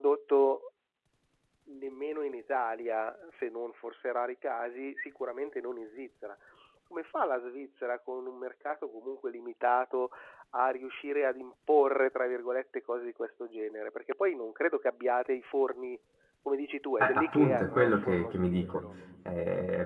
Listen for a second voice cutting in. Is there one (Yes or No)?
Yes